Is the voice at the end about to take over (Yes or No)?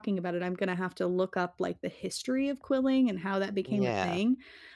No